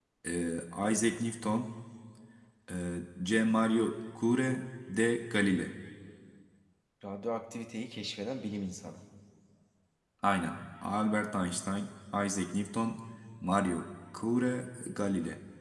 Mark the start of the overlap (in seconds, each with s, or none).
none